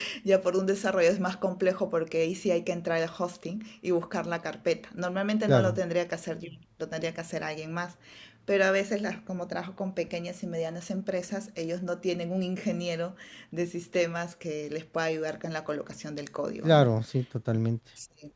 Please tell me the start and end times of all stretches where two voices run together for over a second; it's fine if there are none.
none

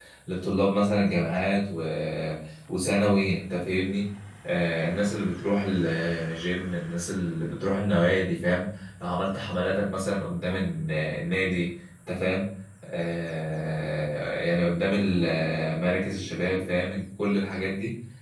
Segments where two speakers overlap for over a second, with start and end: none

